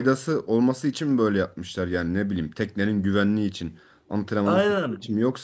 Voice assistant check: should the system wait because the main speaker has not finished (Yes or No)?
No